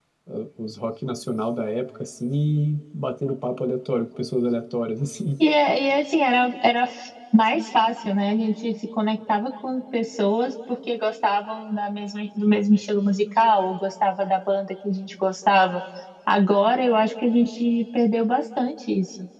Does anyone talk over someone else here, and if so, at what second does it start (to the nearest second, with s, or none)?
none